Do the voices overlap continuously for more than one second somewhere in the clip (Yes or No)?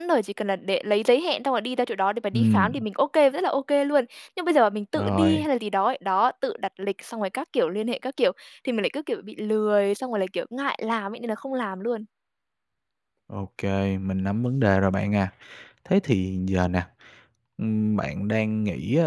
No